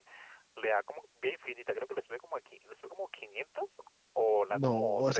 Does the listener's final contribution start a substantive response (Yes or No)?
Yes